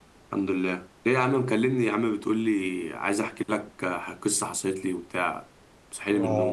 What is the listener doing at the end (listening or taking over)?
taking over